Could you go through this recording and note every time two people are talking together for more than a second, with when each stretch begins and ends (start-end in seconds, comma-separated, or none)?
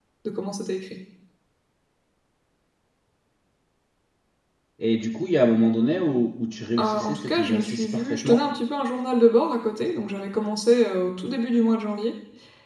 6.8-8.4